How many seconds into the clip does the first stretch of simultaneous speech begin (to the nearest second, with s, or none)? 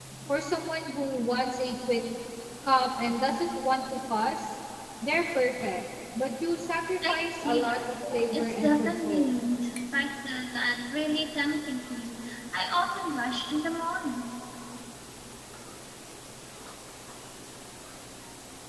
7 s